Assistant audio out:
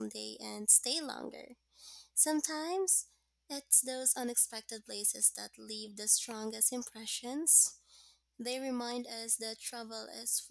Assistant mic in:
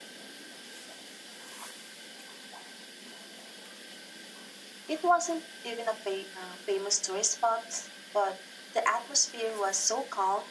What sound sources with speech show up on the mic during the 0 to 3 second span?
neither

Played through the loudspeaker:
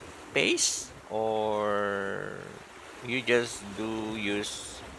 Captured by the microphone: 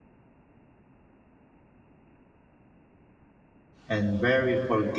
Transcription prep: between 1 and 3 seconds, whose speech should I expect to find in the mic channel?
neither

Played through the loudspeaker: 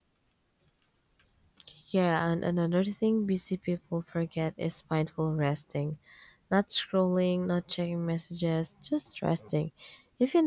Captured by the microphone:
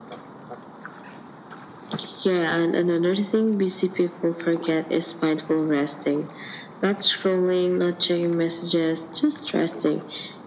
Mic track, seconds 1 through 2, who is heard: neither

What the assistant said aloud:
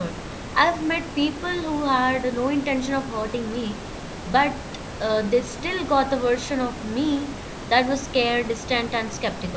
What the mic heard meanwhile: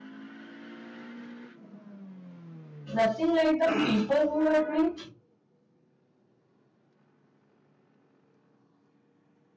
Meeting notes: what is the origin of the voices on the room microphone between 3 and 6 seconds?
user only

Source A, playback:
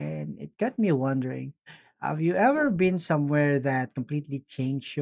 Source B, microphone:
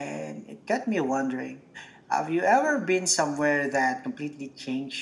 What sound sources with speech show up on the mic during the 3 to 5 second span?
echo only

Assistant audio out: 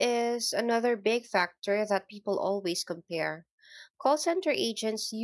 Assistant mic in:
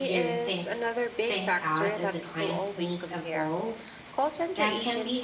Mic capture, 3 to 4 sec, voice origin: both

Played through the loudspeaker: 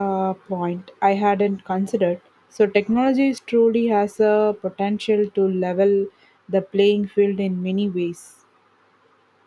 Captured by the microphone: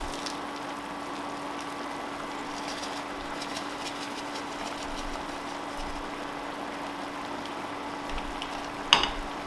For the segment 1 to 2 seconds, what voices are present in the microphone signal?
neither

